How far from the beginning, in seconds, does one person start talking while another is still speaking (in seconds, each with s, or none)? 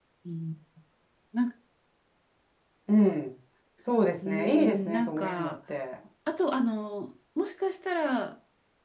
4.2 s